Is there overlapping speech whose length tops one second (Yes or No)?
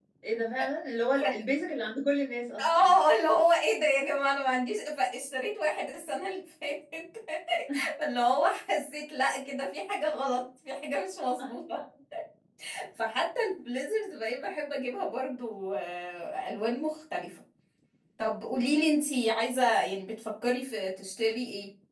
No